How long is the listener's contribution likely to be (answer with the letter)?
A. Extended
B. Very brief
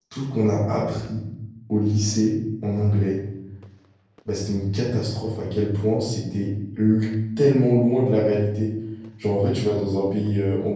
B